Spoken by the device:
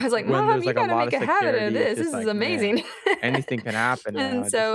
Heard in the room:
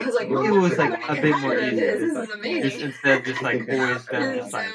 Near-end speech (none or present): present